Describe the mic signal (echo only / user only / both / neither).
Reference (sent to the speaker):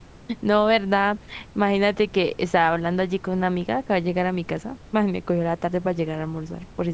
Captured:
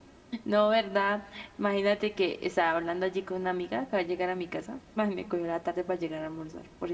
echo only